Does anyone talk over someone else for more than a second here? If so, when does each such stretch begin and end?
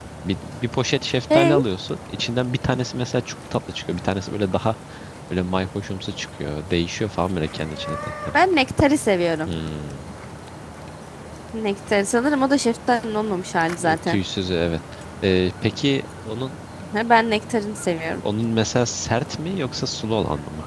none

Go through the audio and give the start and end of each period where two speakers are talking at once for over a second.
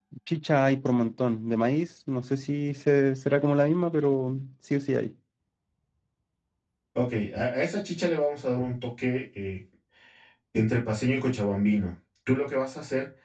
none

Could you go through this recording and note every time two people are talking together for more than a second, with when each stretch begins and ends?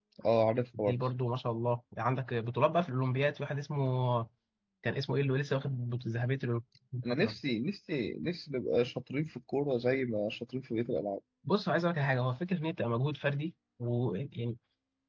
none

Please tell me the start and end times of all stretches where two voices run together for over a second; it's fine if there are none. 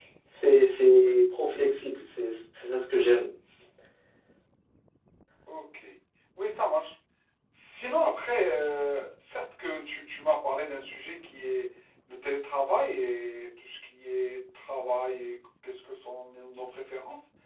none

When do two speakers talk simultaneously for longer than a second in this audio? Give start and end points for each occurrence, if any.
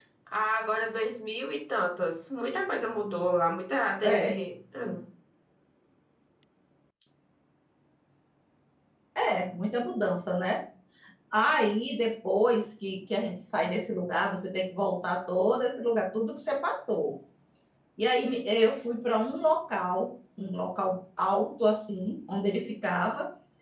none

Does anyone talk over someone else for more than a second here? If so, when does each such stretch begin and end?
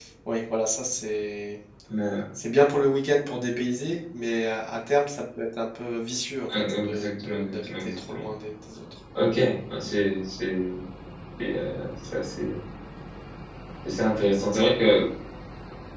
6.5-8.2

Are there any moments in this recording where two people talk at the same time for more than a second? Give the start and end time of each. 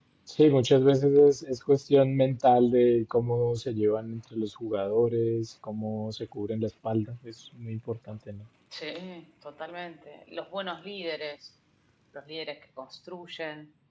none

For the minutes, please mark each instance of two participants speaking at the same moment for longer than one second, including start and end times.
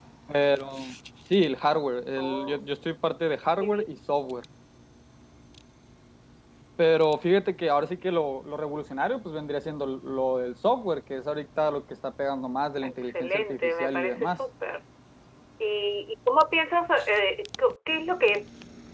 12.8-14.4

